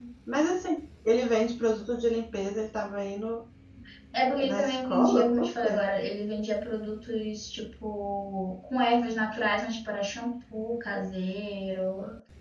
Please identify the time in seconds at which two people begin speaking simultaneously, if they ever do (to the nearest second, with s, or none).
4 s